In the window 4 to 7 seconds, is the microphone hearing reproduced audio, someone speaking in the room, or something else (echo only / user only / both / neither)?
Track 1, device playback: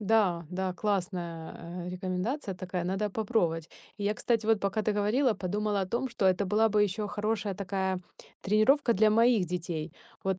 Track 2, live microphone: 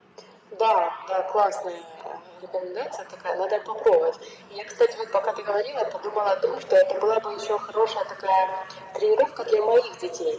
echo only